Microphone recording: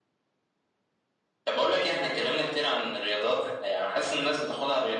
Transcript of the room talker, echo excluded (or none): none